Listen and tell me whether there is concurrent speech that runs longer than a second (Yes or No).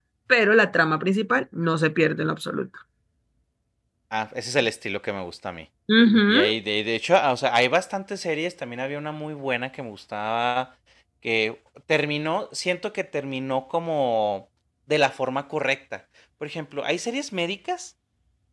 No